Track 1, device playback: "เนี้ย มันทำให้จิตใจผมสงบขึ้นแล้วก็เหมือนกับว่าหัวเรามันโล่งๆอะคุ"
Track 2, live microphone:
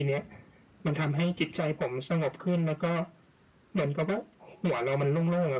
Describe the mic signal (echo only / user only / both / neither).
echo only